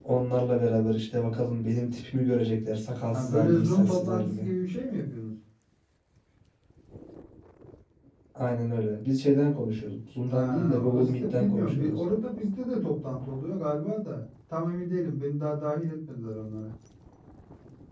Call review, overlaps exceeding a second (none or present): present